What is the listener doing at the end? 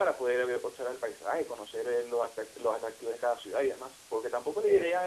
listening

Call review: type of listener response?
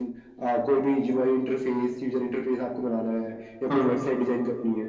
listening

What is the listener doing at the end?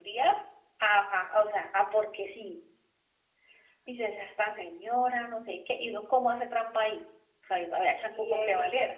taking over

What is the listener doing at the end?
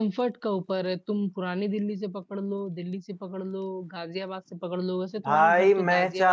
taking over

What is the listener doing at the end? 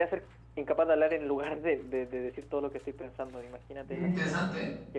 taking over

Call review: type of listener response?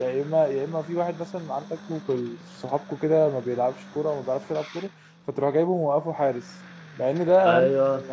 listening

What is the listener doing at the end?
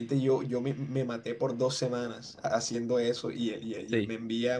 listening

